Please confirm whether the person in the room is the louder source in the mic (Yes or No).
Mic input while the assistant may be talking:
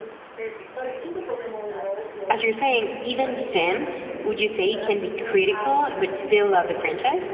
Yes